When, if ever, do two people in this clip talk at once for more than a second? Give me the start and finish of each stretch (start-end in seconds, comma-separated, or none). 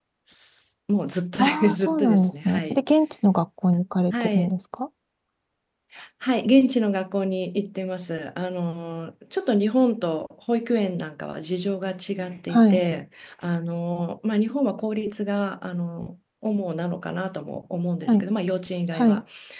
1.4-2.8